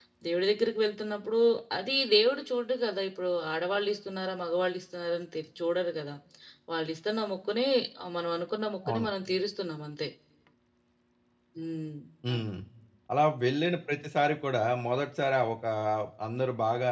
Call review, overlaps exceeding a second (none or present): none